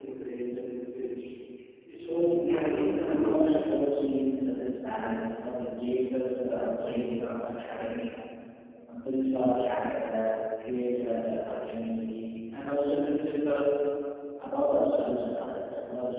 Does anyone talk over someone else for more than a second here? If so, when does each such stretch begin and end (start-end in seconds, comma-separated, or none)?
2.0-3.6